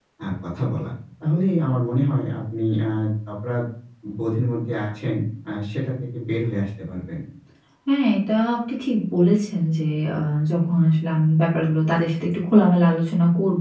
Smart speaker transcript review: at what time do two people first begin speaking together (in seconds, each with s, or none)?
none